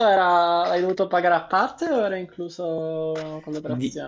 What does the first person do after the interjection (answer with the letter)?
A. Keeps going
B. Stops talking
B